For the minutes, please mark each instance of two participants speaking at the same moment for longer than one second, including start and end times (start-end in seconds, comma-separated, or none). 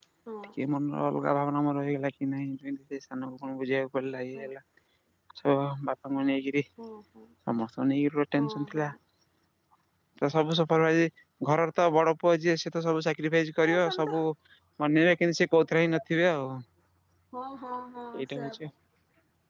none